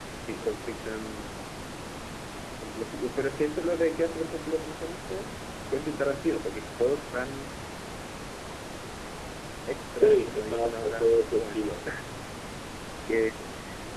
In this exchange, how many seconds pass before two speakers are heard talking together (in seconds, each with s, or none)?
10.0 s